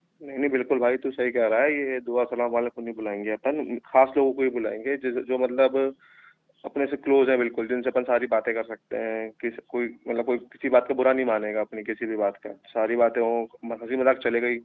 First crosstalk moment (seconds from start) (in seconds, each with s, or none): none